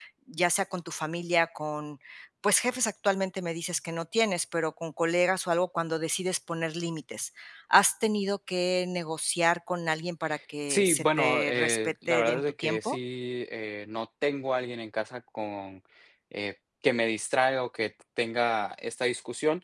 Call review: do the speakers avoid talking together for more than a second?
No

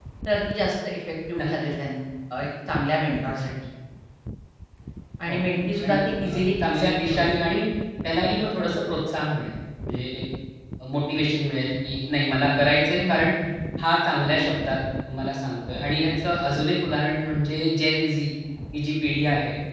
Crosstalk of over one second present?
Yes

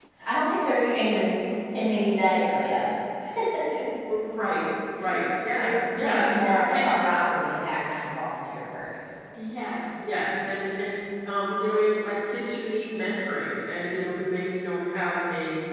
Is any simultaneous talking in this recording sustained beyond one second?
Yes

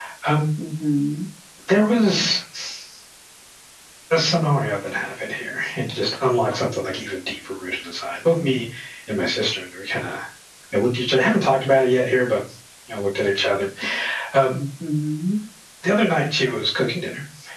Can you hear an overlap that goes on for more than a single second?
No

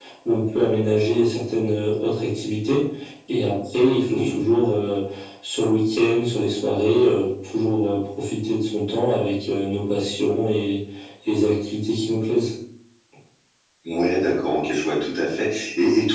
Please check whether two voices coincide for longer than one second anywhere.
No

